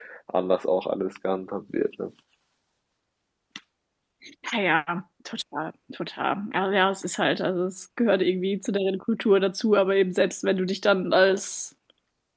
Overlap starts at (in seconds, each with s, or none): none